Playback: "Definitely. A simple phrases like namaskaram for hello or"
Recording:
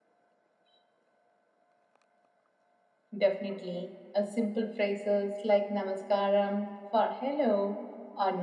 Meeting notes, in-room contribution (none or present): none